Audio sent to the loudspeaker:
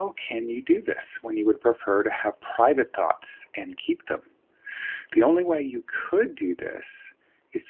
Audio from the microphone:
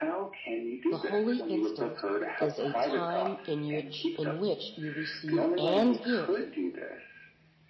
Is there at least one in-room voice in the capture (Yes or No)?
Yes